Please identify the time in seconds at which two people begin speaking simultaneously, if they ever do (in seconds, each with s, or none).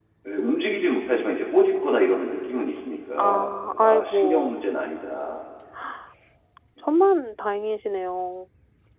3.2 s